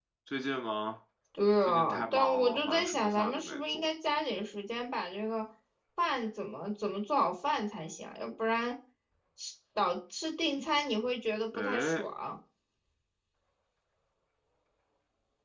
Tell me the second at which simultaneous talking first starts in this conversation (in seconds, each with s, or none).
1.7 s